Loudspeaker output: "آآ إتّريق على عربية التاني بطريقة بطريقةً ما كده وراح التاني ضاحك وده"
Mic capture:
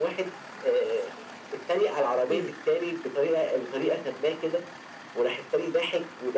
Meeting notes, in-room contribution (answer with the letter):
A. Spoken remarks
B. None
A